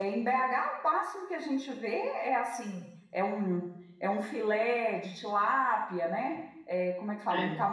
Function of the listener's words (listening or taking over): listening